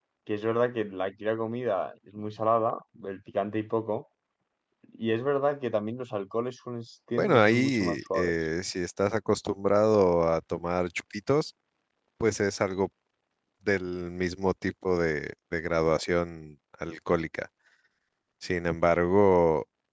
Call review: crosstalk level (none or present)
present